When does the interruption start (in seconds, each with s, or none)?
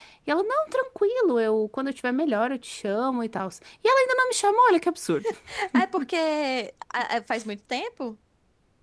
none